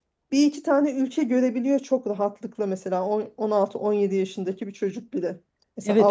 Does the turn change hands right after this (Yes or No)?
Yes